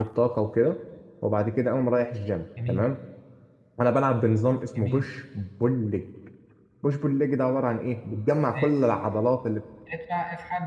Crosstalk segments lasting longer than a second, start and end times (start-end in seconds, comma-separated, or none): none